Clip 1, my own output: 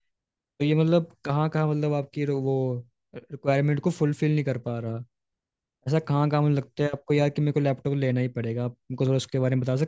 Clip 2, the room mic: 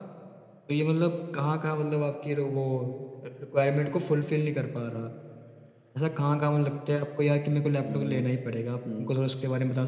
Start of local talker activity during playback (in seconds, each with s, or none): 7.8 s